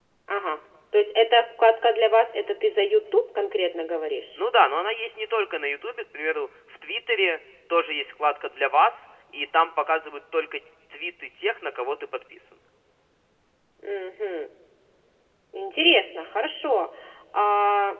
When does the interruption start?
none

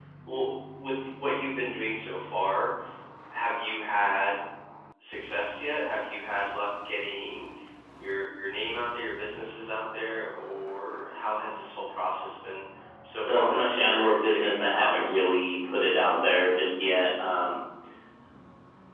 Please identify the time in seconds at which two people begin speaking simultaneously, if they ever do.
13.2 s

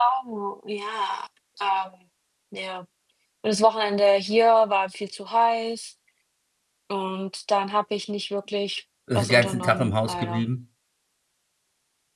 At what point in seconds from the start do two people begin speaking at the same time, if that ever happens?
9.1 s

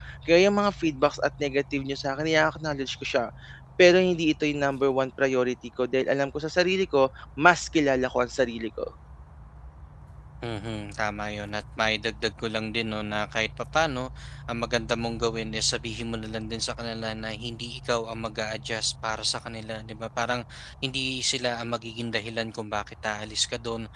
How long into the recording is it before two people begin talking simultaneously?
none

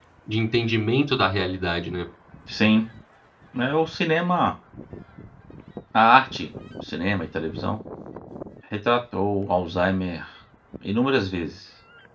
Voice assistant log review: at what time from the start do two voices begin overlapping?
none

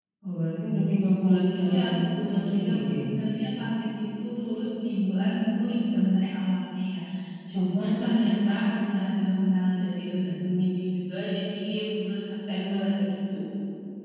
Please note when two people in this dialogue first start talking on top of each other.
1.6 s

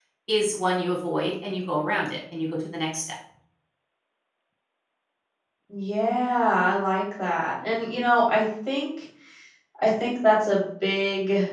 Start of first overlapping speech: none

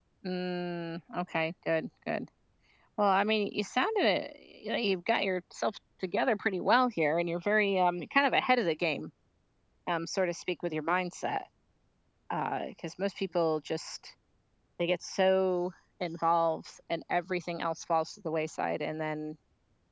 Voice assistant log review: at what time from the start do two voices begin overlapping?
none

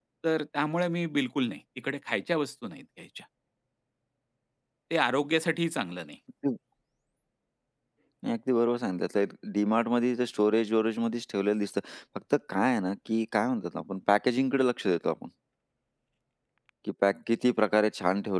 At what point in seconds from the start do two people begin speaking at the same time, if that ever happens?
none

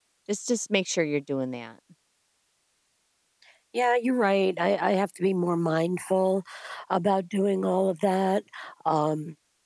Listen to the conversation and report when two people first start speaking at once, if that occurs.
none

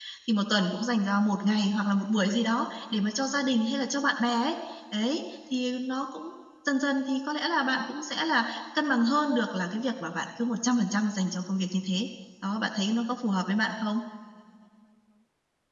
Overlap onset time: none

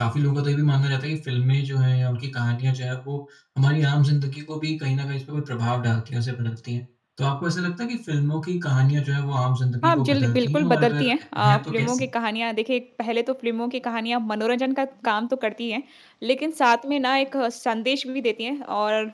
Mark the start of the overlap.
9.8 s

